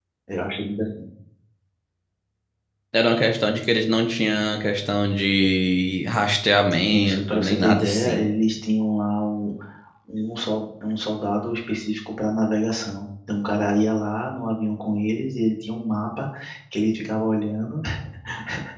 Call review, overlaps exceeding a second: present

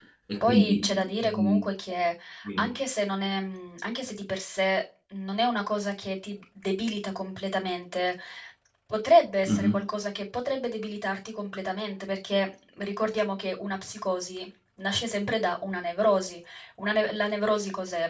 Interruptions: present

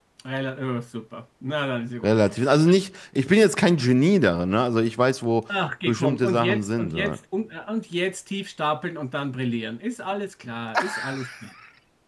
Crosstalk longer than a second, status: present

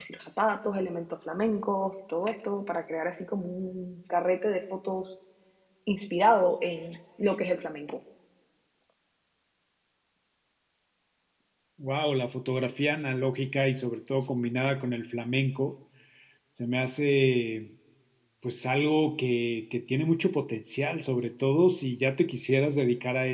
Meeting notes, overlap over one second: none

